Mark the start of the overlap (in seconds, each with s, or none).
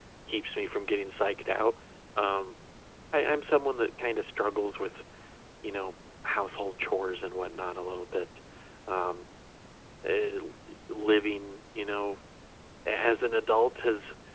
none